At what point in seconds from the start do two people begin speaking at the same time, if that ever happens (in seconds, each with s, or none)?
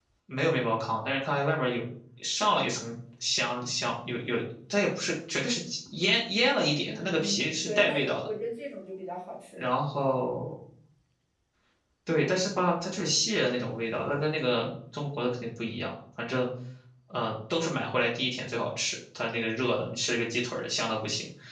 6.8 s